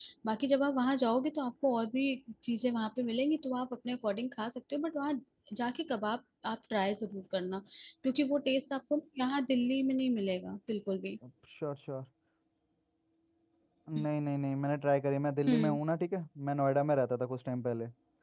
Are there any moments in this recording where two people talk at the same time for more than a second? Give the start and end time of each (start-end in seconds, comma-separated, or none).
none